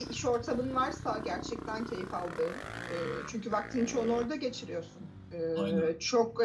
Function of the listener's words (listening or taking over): listening